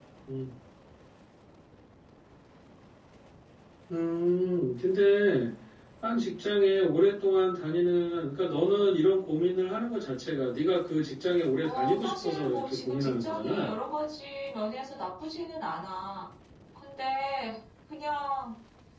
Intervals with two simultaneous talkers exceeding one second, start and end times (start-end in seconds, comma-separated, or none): 11.6-13.7